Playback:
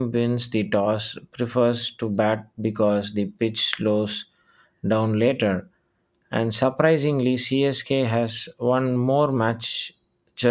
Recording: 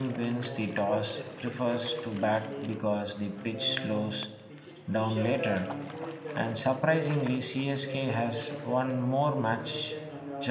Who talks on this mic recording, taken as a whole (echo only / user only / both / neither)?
both